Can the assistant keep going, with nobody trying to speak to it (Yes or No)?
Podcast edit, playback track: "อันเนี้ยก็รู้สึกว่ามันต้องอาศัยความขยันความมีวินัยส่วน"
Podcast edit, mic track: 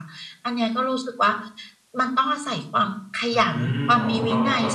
No